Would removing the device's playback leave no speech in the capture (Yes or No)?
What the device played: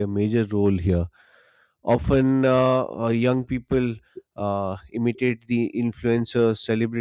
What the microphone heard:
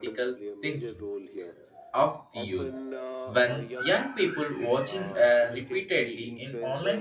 No